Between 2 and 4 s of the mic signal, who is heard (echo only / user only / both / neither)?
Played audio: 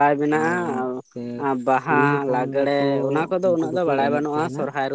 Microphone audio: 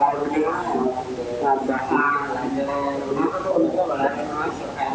echo only